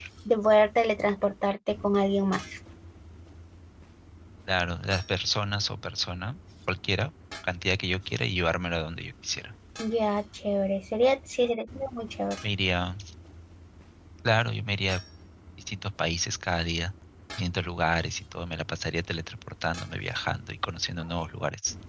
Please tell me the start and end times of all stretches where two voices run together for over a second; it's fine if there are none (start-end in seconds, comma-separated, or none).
none